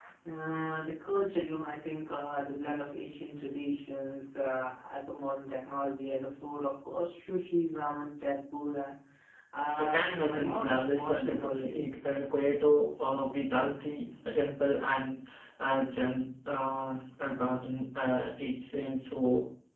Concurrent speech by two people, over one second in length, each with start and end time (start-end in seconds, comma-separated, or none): 9.8-11.8